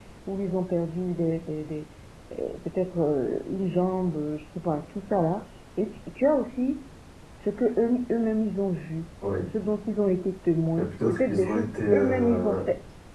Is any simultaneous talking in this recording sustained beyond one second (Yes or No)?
Yes